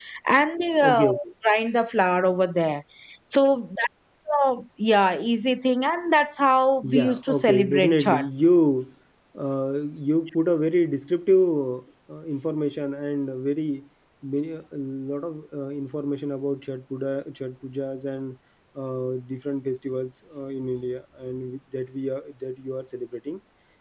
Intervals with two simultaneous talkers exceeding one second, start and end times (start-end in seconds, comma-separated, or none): 6.8-8.2